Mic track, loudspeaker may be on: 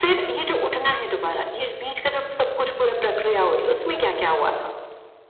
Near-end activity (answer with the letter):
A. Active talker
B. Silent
B